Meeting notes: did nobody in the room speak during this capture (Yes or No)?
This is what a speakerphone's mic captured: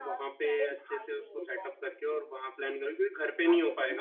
No